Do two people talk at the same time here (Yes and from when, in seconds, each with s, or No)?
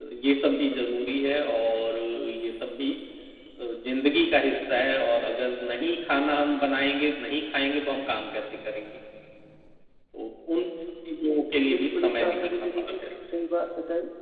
Yes, from 11.7 s